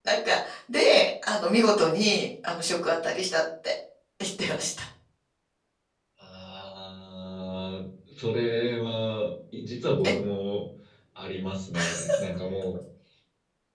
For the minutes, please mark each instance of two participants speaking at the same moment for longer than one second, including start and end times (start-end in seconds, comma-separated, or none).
none